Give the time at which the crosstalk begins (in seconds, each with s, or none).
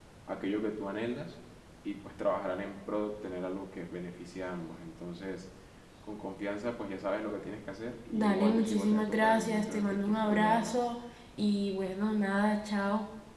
8.1 s